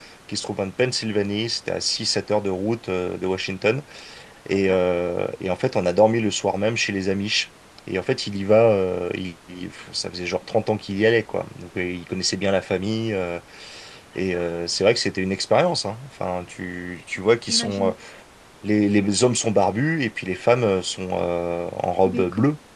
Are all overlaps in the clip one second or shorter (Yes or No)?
Yes